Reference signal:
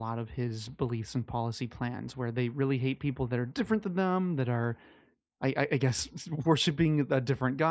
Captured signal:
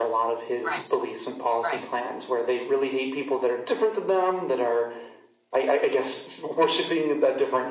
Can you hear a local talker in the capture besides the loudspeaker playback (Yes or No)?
Yes